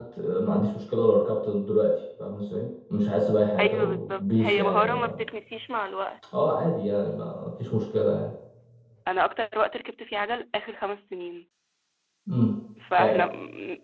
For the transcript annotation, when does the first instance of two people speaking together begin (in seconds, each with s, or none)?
3.6 s